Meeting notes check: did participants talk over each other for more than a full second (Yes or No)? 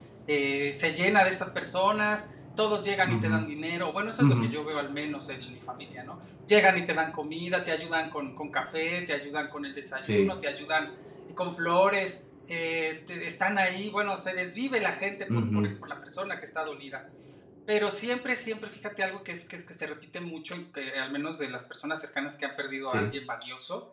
No